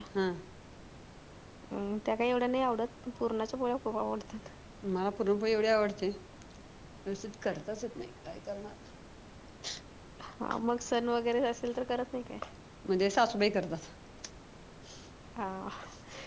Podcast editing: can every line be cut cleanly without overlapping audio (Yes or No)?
Yes